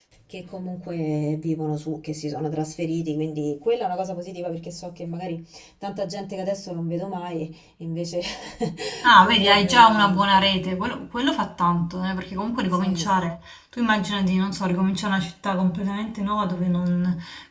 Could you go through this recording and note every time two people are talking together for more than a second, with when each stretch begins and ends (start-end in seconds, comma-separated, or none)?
9.2-10.5